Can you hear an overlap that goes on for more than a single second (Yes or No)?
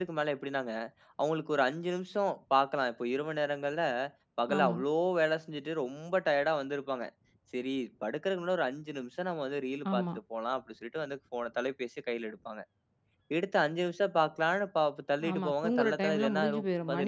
Yes